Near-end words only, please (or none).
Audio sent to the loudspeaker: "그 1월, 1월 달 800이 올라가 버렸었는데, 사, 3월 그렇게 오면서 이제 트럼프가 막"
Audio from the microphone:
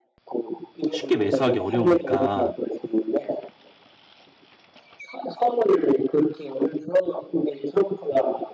쉽게 매수하기 어려우니까